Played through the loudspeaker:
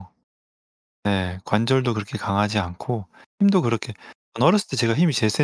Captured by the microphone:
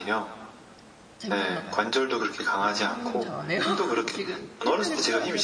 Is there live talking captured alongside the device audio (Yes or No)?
Yes